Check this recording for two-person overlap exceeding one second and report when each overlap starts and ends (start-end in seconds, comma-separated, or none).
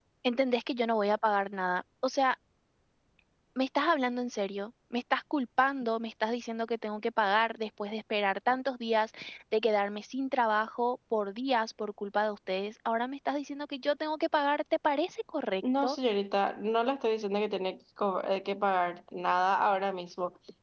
none